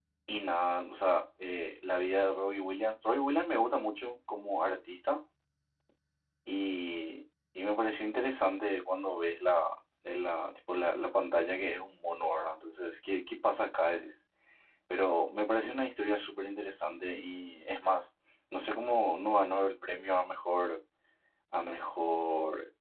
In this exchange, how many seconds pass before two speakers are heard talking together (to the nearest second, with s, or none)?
none